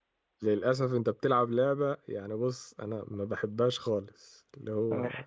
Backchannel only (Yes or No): Yes